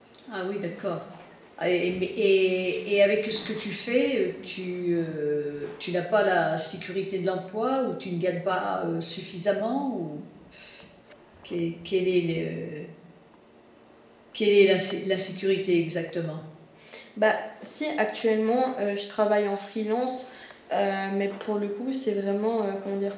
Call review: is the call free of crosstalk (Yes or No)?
Yes